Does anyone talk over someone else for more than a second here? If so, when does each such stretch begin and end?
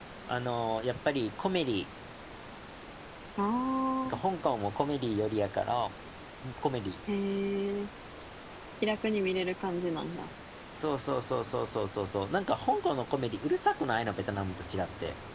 none

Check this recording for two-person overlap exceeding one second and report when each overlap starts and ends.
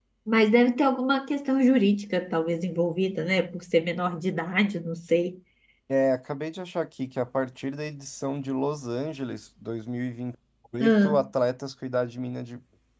none

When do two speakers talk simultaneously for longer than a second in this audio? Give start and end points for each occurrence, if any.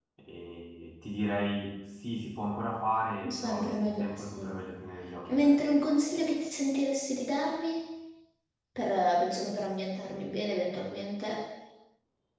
3.3-4.6

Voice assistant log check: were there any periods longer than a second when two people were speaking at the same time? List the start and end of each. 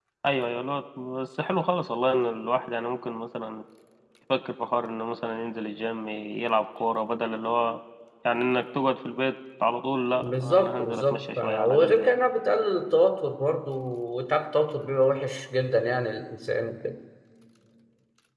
10.2-12.1

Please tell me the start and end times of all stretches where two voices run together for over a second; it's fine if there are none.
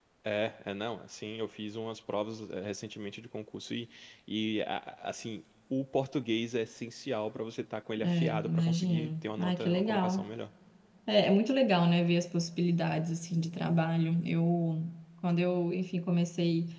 8.0-10.2

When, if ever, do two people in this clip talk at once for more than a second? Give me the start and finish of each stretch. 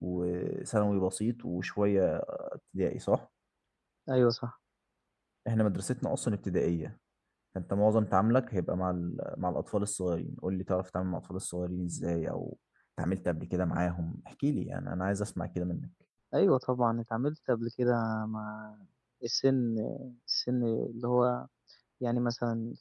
none

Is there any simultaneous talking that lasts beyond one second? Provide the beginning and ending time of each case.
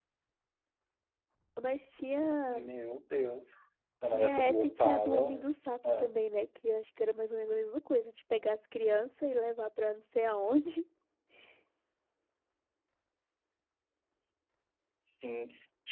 4.0-5.5

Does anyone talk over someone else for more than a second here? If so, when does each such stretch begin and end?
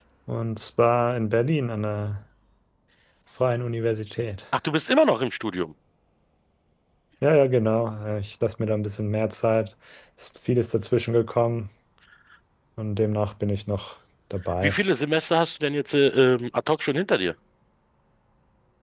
none

